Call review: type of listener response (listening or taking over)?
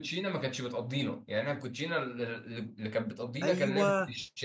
taking over